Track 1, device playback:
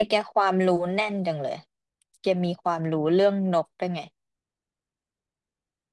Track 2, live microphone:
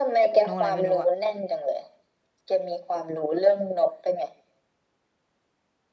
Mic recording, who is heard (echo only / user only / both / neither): both